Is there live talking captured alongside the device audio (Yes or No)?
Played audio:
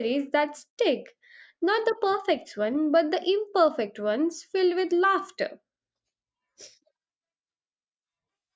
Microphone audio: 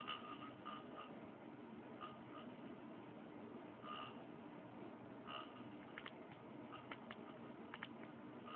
No